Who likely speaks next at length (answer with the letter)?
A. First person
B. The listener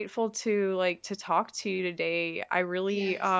A